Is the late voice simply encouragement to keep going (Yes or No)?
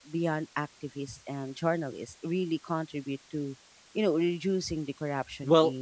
No